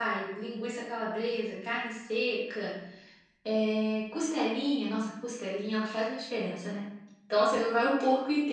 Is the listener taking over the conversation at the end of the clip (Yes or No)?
No